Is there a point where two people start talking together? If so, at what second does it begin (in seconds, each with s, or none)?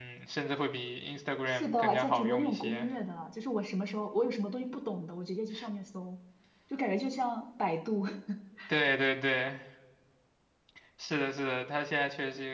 1.5 s